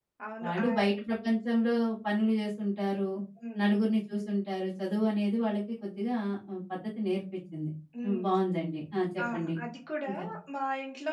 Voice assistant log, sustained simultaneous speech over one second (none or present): none